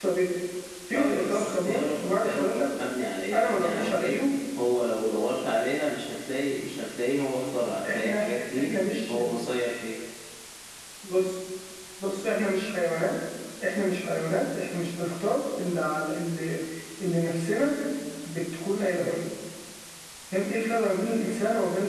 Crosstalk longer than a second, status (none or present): present